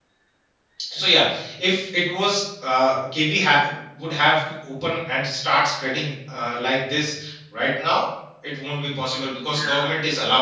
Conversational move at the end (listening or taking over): listening